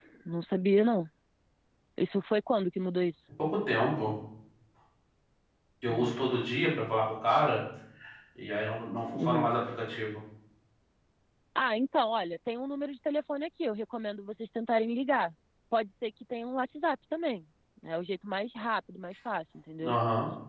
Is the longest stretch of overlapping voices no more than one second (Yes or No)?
Yes